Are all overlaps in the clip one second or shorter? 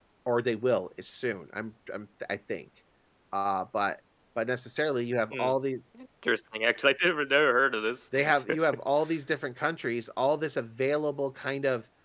Yes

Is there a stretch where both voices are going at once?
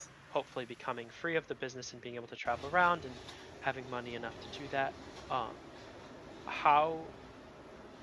No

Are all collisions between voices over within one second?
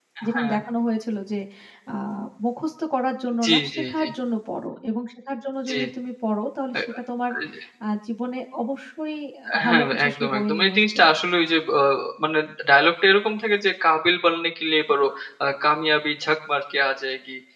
No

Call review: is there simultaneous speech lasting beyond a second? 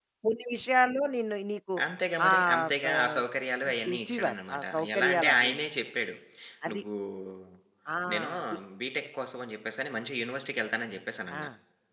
Yes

